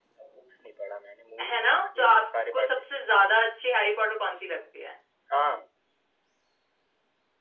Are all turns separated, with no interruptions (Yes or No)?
No